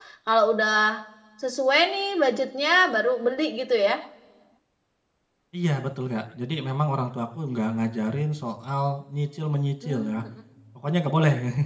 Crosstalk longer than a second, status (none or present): none